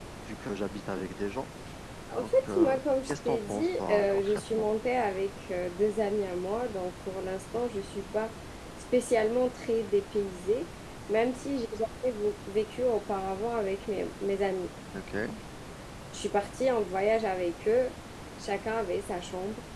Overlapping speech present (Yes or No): Yes